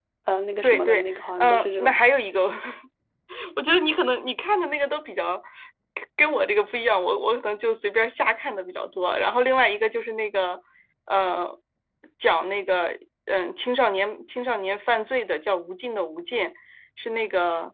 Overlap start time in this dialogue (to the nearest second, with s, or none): 1 s